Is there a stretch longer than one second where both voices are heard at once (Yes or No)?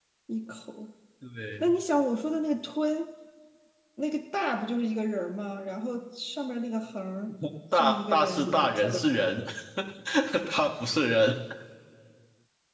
Yes